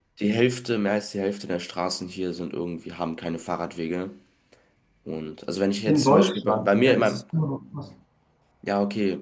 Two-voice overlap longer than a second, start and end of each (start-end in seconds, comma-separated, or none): 5.9-7.2